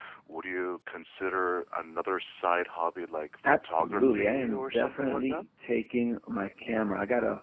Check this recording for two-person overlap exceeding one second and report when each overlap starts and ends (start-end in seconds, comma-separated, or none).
3.5-5.4